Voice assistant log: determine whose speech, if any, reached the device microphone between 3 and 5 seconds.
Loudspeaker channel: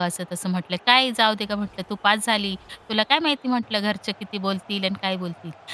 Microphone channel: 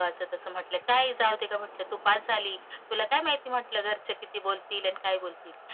echo only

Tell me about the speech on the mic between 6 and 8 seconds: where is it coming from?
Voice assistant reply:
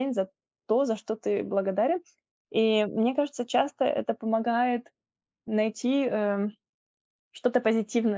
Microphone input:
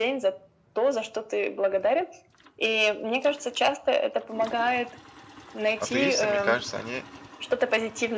both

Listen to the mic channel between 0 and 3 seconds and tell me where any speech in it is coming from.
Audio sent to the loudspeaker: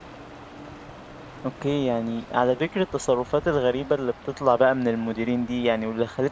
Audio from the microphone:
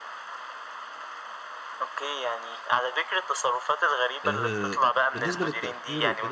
echo only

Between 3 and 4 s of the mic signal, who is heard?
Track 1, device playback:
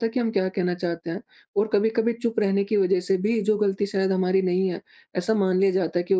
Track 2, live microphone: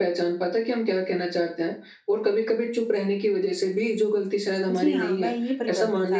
echo only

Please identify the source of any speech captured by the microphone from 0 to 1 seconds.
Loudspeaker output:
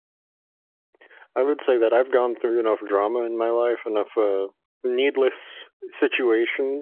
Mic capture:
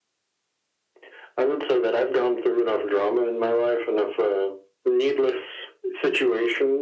neither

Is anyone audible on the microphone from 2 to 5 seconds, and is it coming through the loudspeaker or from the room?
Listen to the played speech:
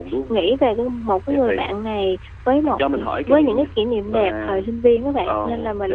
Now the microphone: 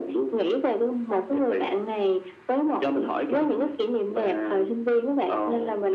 echo only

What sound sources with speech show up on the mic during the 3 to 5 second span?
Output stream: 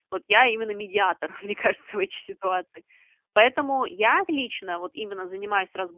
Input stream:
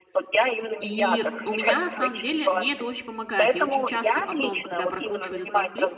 both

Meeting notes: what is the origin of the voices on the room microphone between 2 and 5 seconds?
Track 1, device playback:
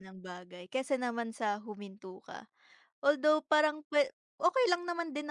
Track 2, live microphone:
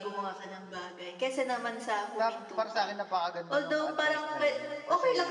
both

